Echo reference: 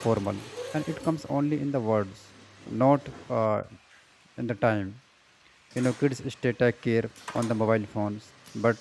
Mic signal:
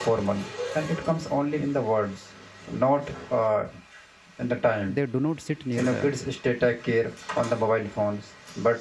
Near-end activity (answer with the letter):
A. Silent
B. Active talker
B